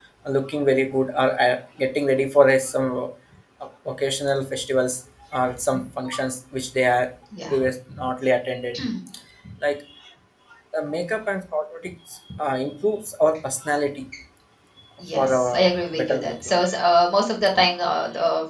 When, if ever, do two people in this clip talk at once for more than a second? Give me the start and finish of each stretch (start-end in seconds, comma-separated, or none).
15.2-16.6